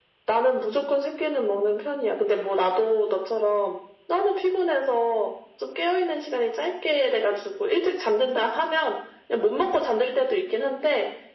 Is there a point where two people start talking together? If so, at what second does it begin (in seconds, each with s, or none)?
none